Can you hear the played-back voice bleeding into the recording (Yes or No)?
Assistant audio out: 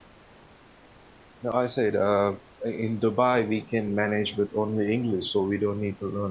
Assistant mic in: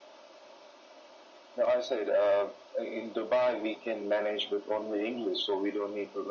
Yes